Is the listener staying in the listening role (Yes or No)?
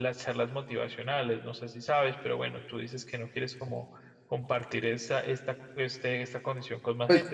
No